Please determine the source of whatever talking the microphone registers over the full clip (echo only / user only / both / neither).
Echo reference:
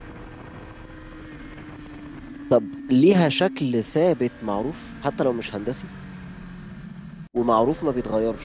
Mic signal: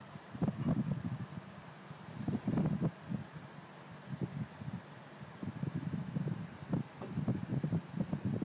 neither